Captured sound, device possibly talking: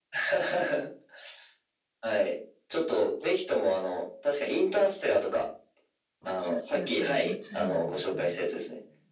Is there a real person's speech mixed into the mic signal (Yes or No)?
Yes